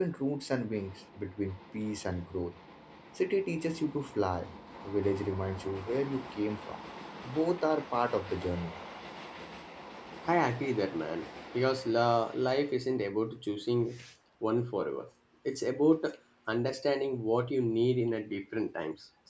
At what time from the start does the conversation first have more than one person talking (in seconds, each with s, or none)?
none